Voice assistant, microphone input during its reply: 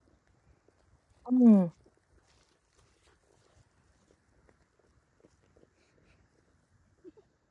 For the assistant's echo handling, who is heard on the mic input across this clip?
user only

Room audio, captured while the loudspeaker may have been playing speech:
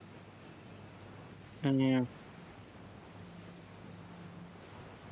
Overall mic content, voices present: user only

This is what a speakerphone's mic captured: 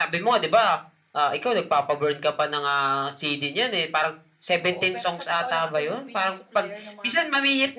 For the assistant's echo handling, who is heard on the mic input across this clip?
both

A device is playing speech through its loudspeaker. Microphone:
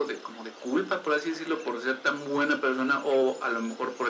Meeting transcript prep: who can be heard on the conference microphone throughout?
echo only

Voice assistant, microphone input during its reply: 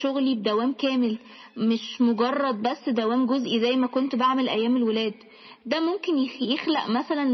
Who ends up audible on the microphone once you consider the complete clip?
echo only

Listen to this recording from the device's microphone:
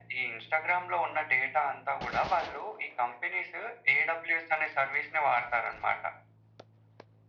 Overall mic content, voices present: echo only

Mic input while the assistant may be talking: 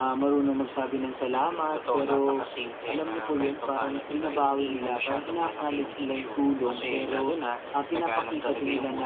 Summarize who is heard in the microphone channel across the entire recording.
echo only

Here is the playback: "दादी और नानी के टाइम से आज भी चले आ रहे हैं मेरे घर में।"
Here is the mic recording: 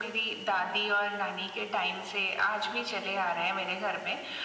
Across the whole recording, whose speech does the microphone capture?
echo only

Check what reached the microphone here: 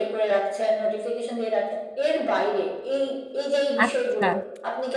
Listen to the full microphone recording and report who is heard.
both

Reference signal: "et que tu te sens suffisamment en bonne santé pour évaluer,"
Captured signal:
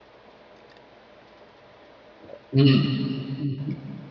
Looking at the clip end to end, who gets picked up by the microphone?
user only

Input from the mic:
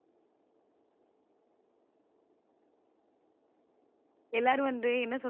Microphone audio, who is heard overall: user only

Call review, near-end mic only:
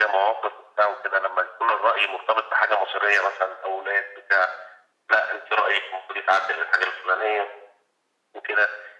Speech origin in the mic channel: echo only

